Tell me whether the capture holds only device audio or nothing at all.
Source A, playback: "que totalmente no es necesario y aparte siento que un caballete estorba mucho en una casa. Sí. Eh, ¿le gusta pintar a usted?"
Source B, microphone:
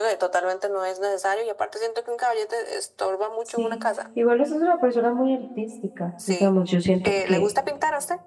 No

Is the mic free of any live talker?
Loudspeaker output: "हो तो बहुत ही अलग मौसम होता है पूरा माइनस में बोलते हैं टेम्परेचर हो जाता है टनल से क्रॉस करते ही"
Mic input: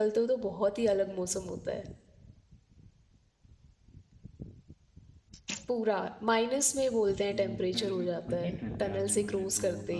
No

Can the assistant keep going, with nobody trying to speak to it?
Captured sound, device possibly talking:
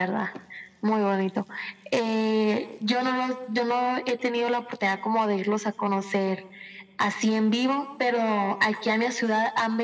Yes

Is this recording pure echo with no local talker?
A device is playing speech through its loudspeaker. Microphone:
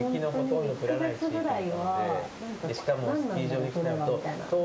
No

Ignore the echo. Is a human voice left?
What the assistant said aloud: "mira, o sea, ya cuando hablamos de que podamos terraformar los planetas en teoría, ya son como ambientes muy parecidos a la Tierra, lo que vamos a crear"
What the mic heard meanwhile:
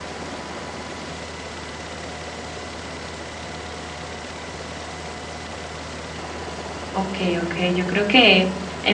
Yes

